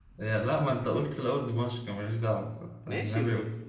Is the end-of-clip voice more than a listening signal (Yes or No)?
Yes